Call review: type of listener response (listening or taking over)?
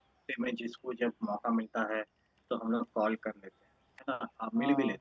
listening